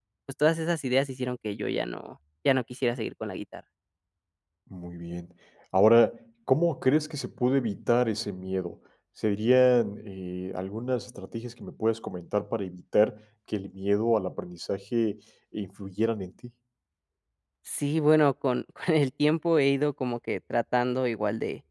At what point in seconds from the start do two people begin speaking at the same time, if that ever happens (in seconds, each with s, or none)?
none